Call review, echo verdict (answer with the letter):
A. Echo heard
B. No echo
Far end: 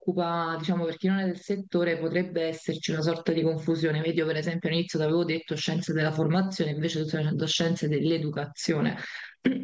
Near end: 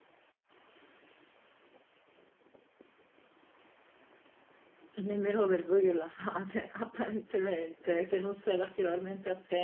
B